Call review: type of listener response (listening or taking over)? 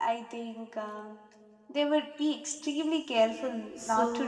taking over